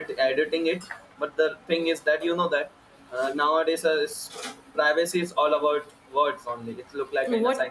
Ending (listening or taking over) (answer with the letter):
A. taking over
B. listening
A